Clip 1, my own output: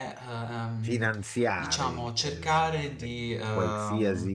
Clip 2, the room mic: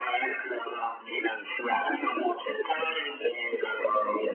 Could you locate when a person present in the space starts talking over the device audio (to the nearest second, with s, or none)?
none